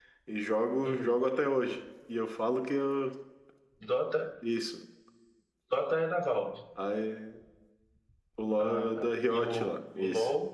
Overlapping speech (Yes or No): Yes